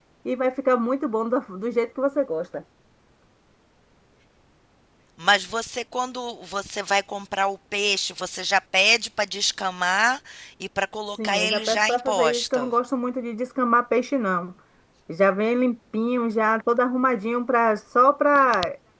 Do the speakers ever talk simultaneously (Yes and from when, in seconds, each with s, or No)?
Yes, from 11.1 s